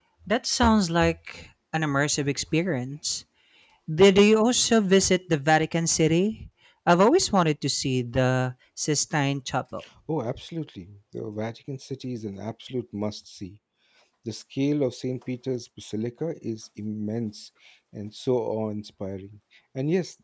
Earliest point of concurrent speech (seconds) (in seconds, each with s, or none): none